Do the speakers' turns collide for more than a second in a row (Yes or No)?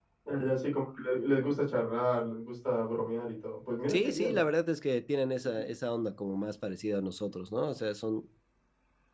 No